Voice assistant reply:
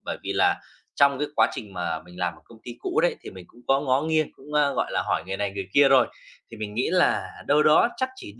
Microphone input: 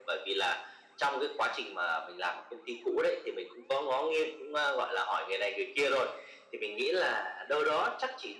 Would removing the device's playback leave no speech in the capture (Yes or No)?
Yes